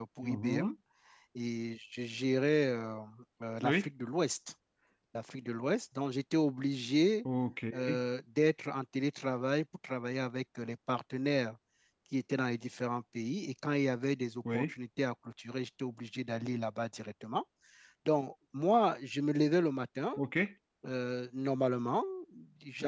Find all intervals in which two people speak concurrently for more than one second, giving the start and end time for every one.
none

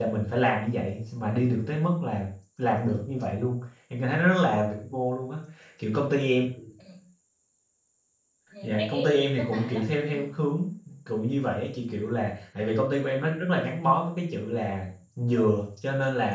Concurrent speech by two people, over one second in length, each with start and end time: 8.6-10.2

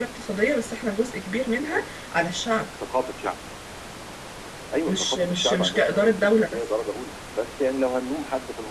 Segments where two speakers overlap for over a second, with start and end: 4.9-6.6

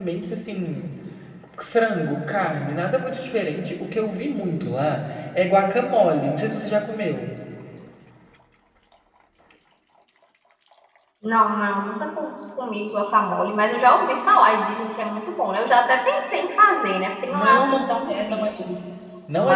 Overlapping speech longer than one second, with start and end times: 17.3-18.5

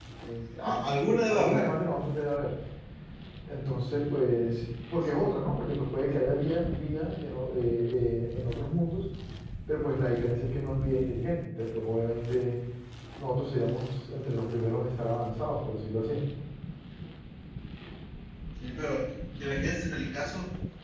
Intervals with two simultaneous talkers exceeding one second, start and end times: none

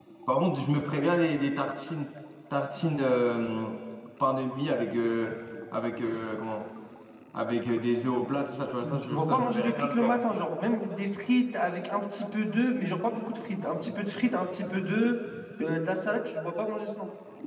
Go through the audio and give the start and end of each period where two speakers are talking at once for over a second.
8.8-10.1

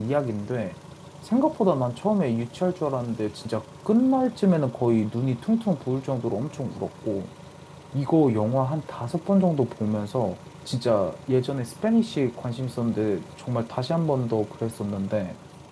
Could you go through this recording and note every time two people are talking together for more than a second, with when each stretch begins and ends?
none

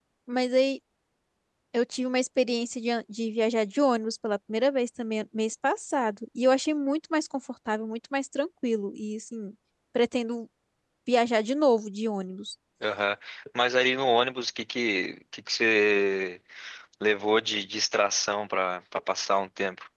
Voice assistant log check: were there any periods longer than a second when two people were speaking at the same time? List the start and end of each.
none

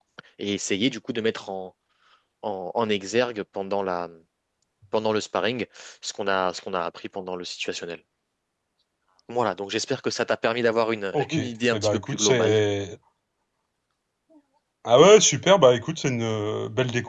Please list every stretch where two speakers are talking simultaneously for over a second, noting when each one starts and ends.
11.1-12.6

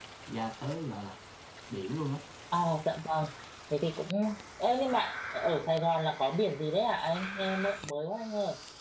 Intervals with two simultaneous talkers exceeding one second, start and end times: none

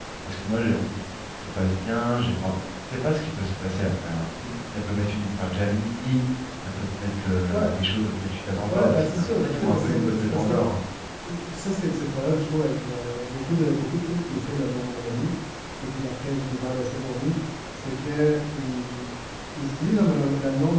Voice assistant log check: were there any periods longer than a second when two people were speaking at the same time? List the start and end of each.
8.7-10.6

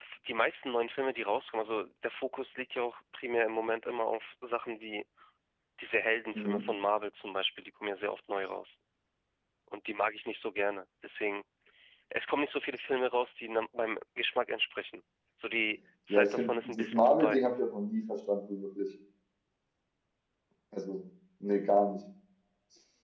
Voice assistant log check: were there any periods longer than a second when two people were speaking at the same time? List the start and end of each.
16.1-17.4

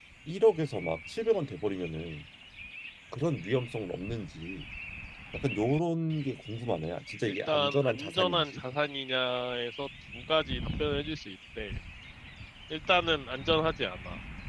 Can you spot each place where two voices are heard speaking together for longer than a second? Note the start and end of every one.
7.3-8.6

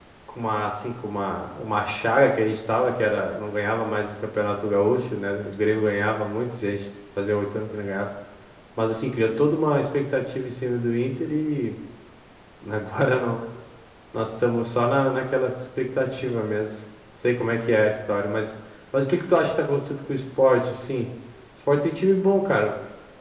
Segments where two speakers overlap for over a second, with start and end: none

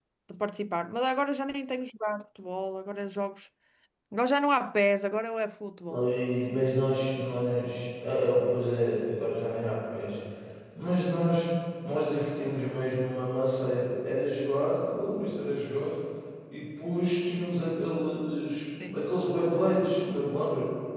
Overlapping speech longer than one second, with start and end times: none

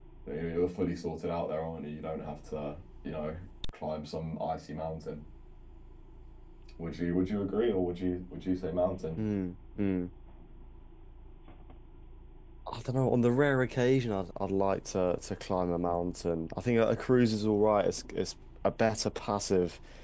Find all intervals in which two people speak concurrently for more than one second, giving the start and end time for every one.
none

